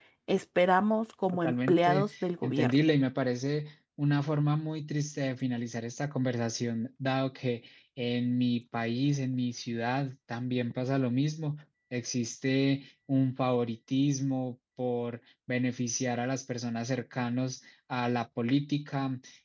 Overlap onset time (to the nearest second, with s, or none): 1 s